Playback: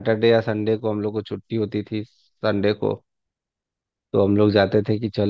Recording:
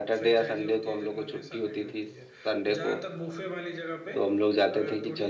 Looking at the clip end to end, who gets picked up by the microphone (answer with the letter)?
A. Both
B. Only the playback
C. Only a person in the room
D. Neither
A